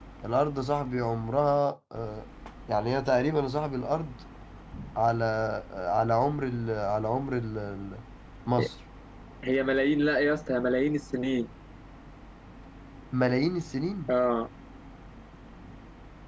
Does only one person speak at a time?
Yes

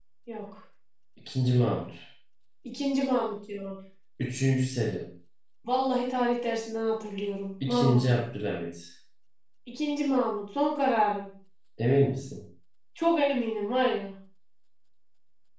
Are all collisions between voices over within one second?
Yes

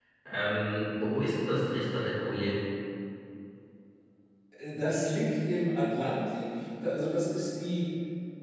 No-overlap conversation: Yes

